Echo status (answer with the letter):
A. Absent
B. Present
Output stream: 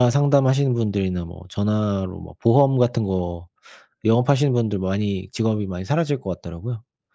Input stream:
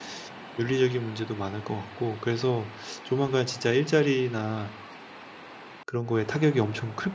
A